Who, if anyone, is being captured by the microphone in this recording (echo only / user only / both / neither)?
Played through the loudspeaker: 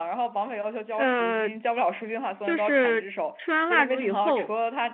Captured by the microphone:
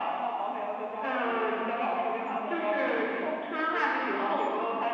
echo only